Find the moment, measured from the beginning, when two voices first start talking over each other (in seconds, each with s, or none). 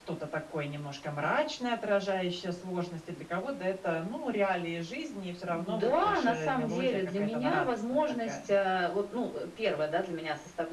5.5 s